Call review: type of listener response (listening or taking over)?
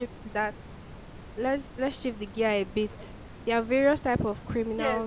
taking over